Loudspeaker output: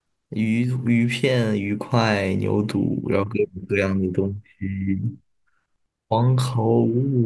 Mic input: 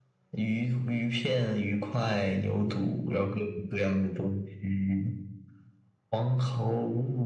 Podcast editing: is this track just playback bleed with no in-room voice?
Yes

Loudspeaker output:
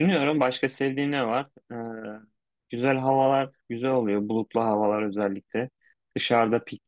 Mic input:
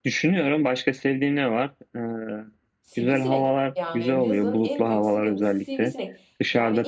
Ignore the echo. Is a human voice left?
Yes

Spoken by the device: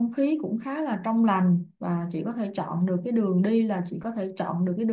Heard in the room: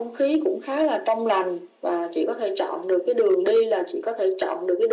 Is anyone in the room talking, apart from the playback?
No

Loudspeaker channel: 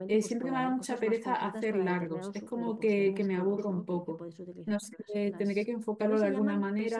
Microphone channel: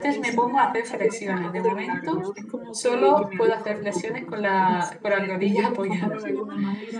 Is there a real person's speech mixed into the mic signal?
Yes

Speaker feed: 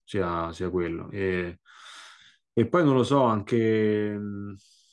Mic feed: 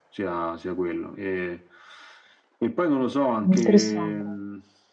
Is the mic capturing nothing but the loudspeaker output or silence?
No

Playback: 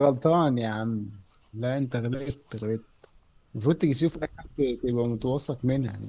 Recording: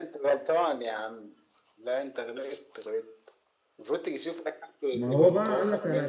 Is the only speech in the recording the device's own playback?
No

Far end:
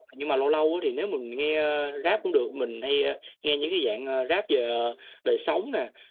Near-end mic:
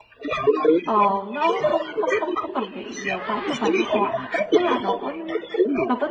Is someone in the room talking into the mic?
Yes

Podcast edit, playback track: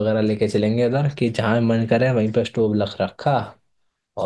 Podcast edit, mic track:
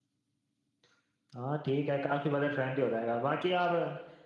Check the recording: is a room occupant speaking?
Yes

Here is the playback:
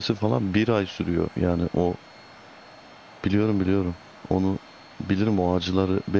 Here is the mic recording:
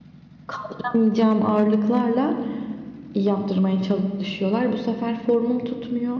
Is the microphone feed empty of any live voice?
No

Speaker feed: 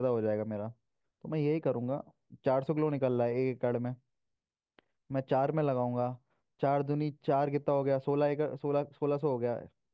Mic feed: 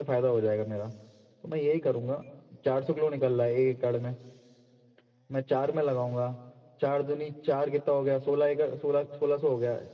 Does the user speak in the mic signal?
No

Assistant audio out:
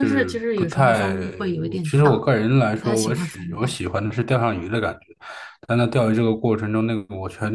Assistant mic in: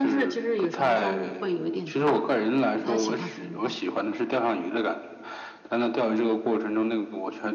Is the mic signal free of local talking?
Yes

